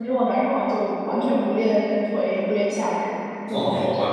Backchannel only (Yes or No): No